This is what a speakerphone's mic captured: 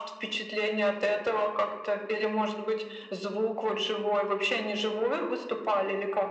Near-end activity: none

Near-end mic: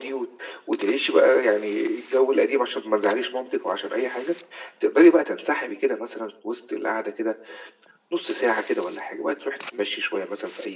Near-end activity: none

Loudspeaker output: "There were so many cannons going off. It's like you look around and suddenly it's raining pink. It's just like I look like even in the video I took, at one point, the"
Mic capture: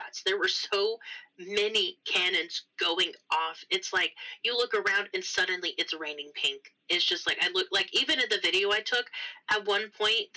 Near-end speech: none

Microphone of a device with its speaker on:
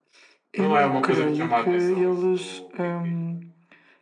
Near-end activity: present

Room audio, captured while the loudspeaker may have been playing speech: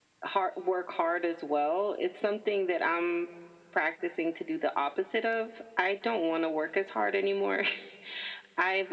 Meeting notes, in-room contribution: none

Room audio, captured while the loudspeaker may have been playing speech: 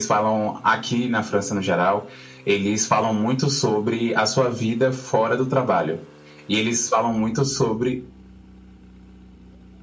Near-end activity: none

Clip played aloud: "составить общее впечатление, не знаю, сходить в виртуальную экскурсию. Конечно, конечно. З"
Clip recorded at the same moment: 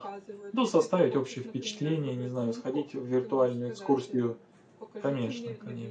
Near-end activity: present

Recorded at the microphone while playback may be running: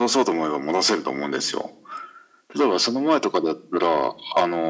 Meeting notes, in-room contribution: none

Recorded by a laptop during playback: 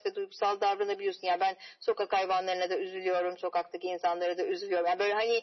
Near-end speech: none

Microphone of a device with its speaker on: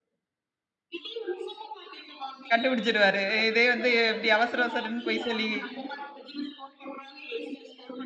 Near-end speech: present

